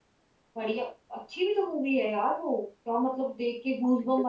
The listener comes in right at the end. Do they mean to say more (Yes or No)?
Yes